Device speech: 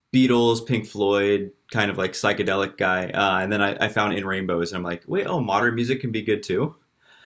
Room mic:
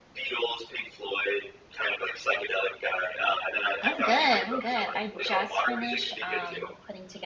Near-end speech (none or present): present